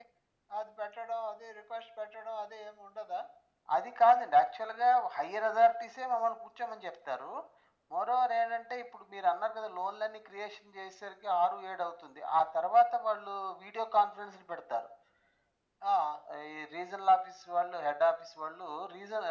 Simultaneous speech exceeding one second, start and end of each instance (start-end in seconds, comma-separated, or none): none